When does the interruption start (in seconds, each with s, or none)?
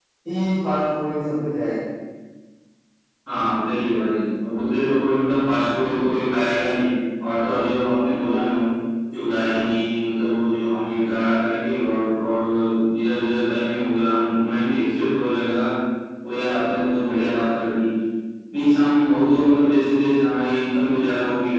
none